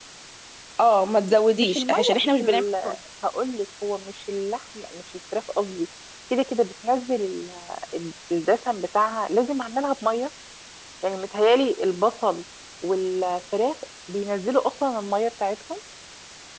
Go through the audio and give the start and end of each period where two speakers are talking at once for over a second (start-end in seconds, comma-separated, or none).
1.6-3.0